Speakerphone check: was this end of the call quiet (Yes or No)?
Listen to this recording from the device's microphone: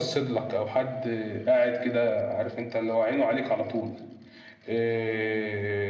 Yes